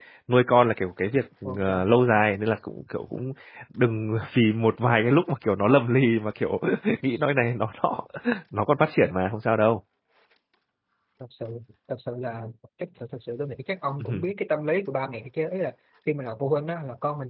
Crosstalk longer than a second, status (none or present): none